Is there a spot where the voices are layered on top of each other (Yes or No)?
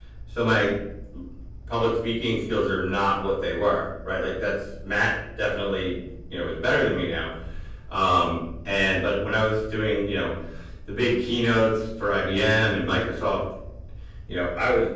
No